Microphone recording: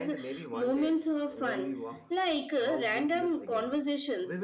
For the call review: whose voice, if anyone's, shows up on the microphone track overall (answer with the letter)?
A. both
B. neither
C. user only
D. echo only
A